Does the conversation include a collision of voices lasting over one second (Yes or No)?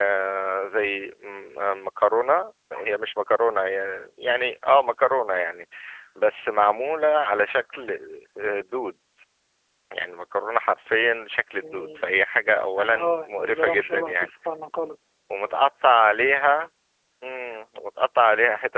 Yes